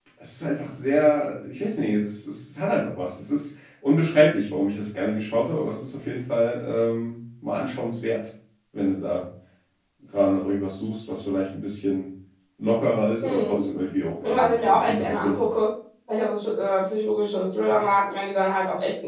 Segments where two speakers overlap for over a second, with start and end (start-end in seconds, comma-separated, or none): 14.2-15.5